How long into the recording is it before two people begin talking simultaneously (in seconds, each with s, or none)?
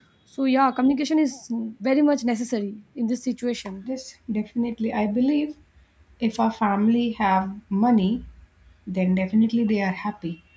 none